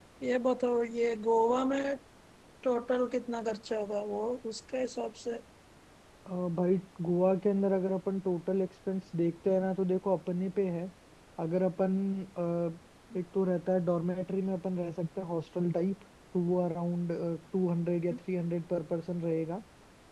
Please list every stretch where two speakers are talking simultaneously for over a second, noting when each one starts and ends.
none

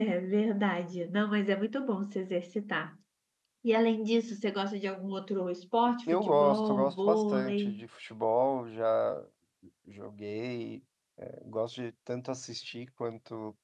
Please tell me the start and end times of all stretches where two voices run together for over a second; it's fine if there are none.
6.1-7.7

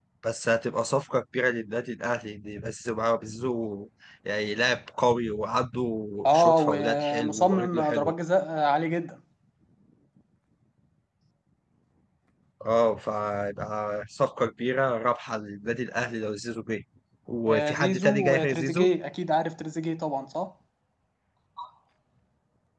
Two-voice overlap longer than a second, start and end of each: 6.2-8.1, 17.5-18.9

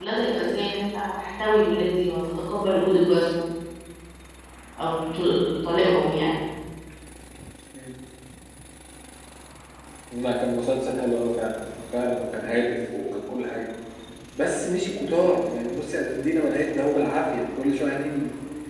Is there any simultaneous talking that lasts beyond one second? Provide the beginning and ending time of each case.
none

